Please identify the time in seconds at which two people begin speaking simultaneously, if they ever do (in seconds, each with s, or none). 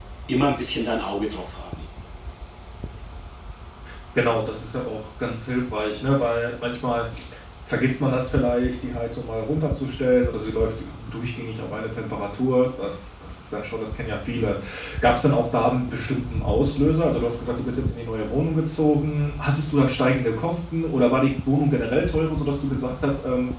none